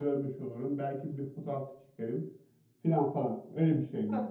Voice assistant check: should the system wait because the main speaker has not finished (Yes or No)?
No